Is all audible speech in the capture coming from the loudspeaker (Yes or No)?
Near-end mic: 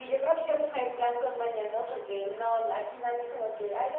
Yes